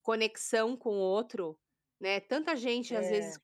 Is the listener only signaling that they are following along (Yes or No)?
Yes